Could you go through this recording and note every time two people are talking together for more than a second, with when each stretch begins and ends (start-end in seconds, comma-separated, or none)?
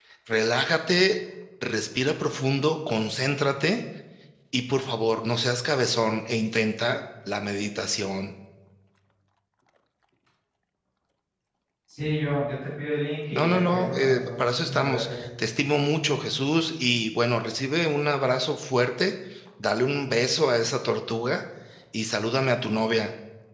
13.3-15.2